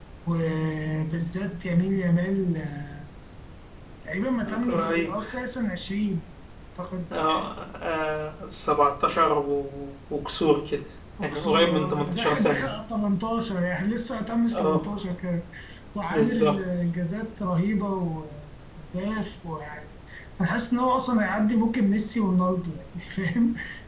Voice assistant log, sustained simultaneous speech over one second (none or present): present